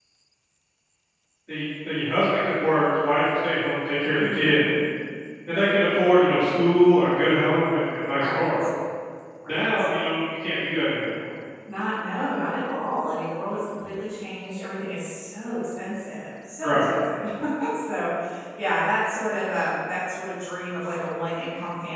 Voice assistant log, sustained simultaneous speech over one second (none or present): none